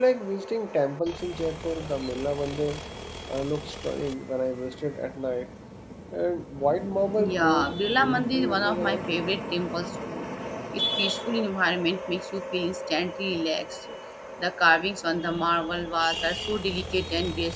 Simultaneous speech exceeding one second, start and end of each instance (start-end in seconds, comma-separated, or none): 7.3-9.0